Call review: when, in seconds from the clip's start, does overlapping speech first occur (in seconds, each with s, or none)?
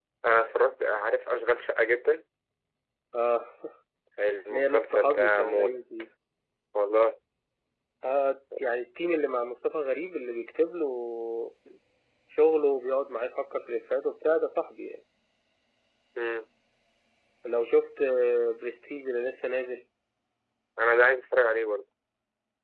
4.5 s